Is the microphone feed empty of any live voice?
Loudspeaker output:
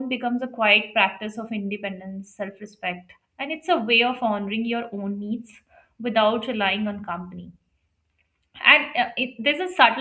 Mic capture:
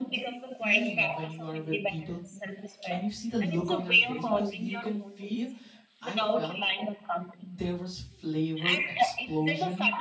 No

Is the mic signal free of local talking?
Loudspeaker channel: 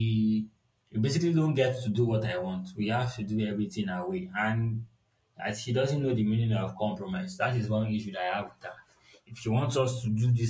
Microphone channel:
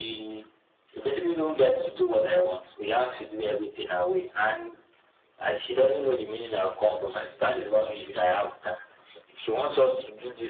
Yes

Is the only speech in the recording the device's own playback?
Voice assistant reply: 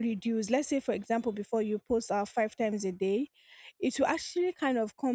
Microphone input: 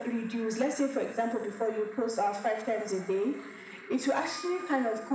Yes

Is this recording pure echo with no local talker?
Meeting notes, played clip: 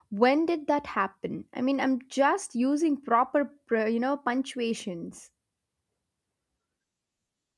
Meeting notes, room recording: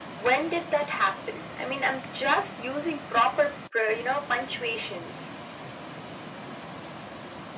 Yes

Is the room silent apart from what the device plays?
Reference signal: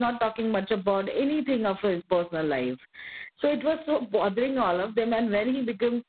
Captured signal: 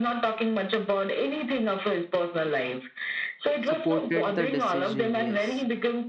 No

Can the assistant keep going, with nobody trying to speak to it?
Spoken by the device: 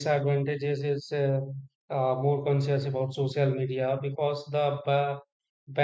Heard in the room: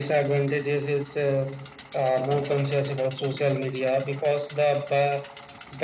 Yes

